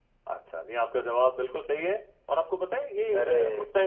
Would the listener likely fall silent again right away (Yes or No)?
Yes